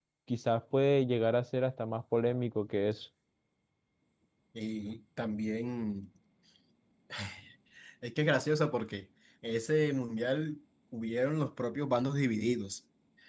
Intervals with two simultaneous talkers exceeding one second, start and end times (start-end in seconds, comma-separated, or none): none